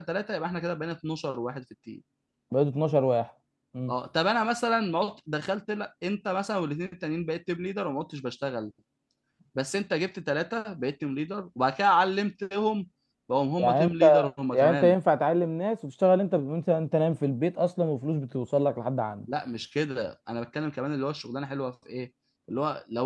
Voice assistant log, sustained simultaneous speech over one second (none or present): present